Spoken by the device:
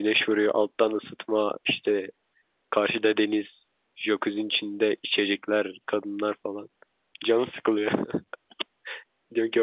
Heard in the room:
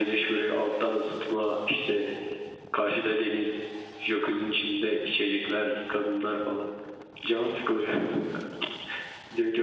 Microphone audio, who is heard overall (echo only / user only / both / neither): echo only